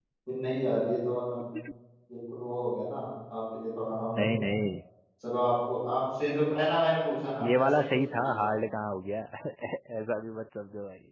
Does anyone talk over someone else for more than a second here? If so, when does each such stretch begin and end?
7.4-8.6

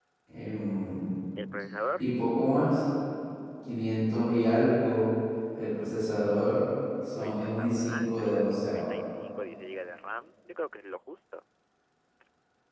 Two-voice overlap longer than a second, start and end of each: 7.2-8.9

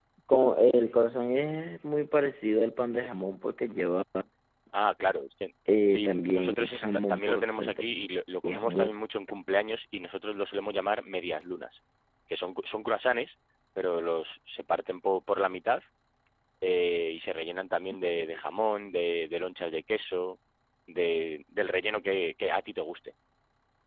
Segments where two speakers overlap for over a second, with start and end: 5.9-7.8

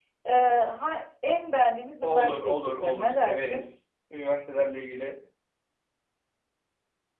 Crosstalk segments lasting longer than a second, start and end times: 2.0-3.6

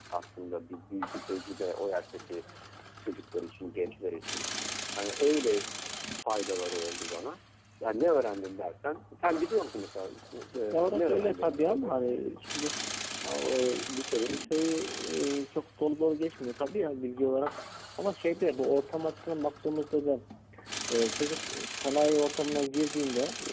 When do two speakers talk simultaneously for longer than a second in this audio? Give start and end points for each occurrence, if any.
10.7-12.4

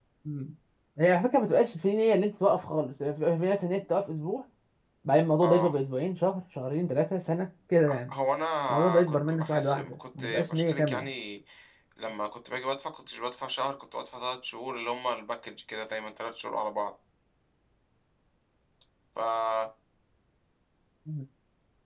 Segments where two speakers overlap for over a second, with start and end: 8.7-11.1

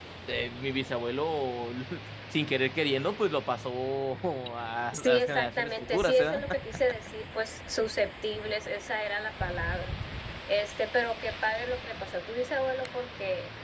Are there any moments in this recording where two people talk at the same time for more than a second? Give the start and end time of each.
4.9-6.3

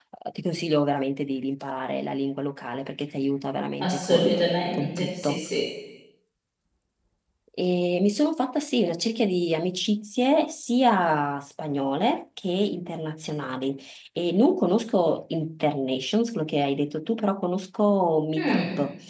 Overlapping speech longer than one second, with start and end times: 3.8-5.4

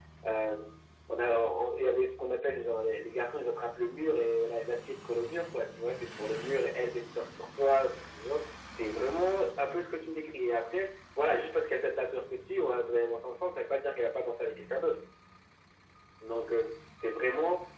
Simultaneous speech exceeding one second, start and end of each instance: none

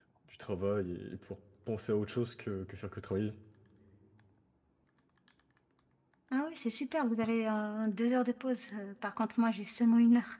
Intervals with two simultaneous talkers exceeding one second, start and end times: none

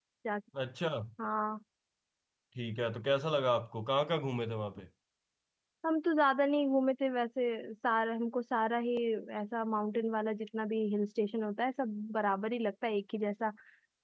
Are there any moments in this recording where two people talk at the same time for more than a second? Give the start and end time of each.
none

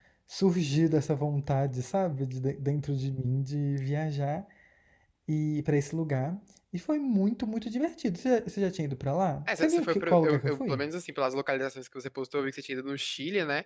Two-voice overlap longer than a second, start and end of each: 9.6-10.8

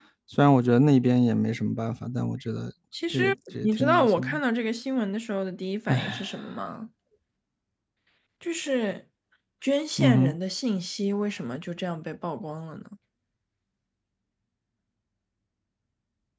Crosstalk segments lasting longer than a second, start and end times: 3.1-4.4

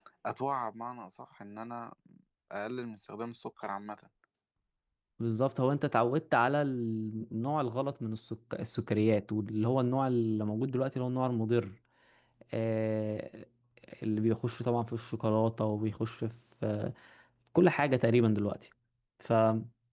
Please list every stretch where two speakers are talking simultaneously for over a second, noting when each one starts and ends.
none

